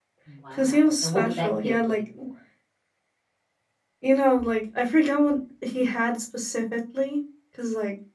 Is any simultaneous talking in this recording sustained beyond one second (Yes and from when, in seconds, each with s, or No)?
Yes, from 0.5 s